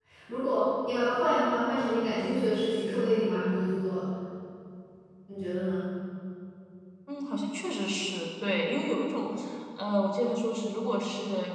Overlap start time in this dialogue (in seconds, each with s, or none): none